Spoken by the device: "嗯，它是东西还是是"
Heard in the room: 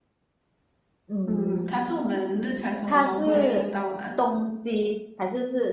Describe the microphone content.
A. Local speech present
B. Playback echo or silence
A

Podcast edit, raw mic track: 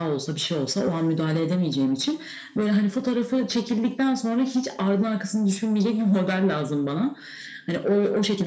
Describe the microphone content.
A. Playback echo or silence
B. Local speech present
A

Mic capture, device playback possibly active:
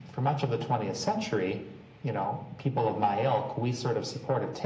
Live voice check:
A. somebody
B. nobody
B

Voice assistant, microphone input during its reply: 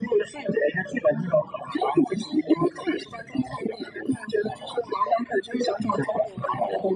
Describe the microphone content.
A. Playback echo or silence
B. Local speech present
A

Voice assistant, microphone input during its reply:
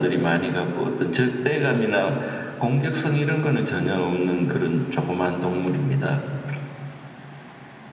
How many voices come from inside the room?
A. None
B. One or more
A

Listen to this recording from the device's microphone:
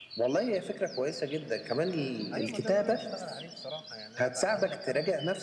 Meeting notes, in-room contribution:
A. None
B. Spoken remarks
B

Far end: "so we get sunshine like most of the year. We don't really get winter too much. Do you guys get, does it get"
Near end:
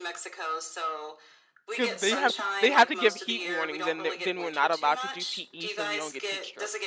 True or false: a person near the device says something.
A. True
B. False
A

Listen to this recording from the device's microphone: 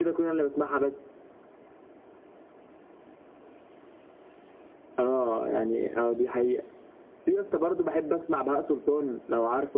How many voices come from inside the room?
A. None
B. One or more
A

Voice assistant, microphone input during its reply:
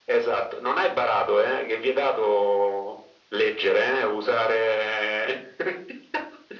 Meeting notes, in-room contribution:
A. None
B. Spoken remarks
A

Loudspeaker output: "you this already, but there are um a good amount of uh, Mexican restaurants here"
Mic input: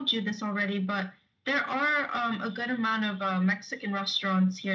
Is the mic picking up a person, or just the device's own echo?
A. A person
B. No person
B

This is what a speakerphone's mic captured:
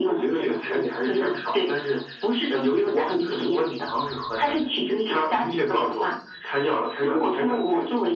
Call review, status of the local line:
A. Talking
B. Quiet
B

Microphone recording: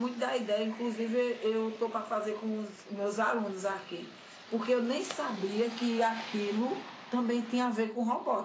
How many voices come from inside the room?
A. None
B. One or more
A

